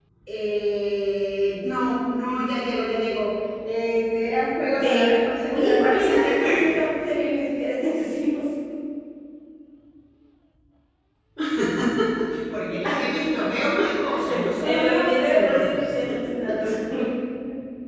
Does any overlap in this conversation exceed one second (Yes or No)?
Yes